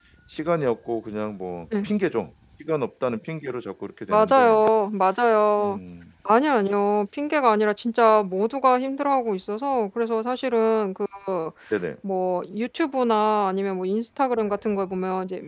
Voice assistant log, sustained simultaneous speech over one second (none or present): none